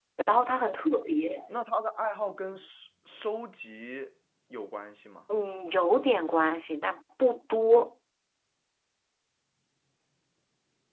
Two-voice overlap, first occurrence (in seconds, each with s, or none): none